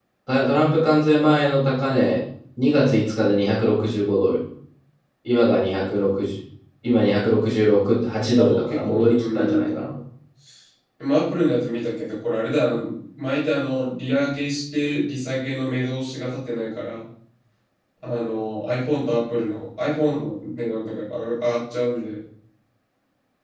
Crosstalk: present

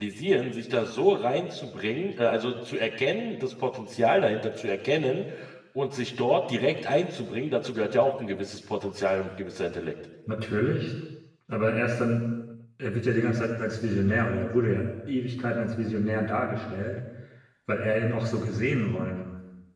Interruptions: none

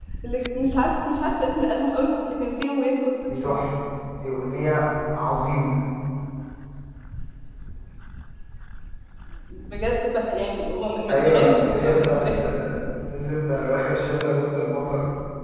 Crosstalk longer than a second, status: present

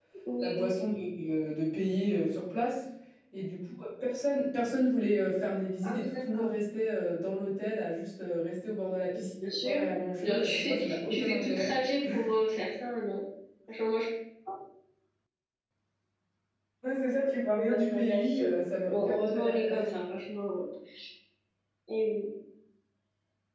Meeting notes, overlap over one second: present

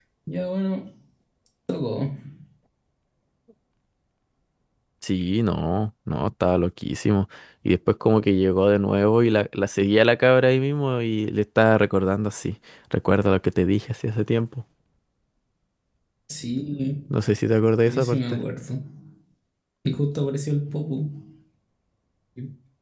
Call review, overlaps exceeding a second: none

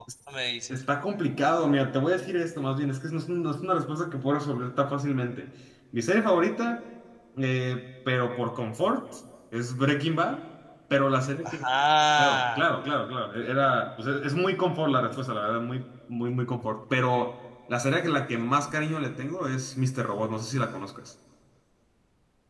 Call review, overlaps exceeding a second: none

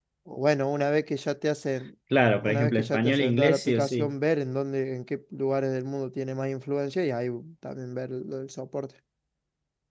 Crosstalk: present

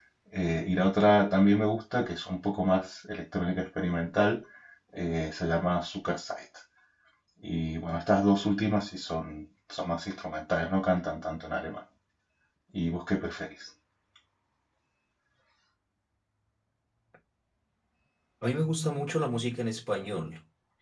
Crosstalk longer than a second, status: none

